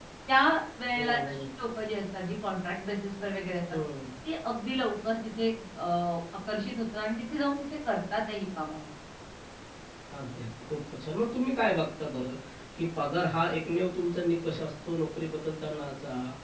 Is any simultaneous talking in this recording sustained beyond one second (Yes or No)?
No